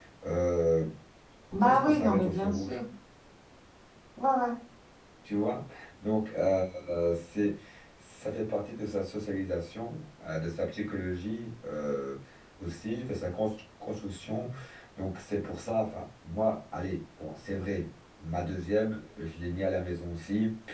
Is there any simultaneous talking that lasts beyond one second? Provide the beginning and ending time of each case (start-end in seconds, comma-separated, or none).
1.5-2.8